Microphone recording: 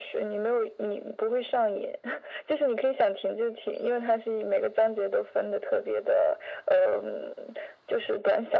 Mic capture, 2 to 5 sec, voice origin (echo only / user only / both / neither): echo only